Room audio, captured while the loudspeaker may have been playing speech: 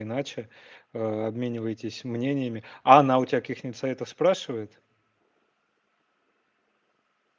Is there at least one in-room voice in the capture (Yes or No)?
Yes